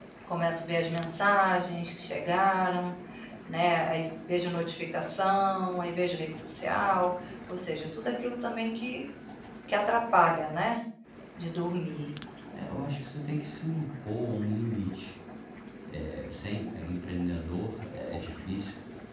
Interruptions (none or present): none